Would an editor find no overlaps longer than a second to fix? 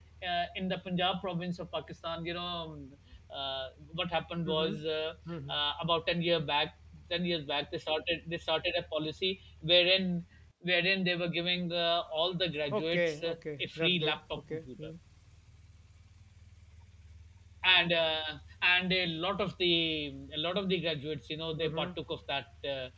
No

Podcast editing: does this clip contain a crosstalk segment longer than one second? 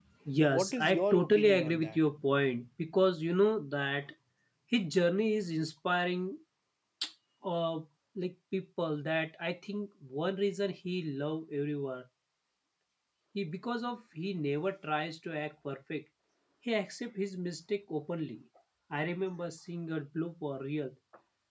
Yes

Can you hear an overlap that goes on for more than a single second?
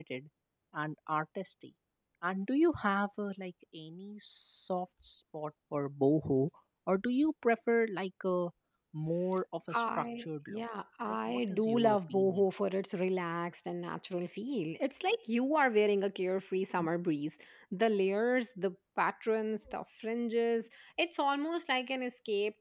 Yes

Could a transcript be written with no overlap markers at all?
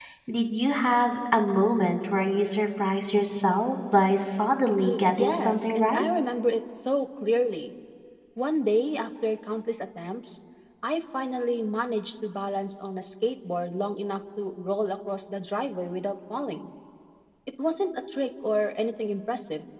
No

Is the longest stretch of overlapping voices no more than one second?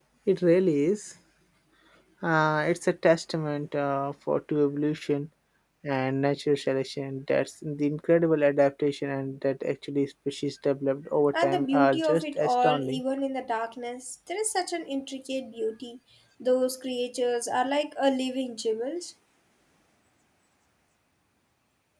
No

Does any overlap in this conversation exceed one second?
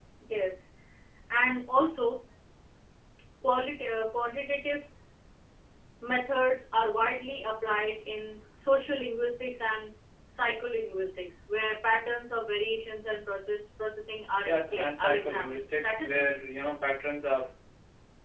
Yes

